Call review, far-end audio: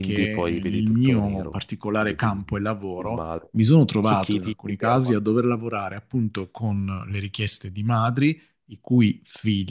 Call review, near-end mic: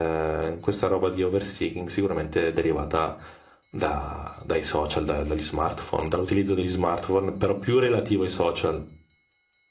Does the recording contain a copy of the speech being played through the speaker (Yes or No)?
No